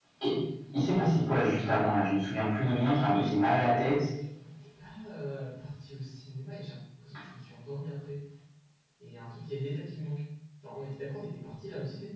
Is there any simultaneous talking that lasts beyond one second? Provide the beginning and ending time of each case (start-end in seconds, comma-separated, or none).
none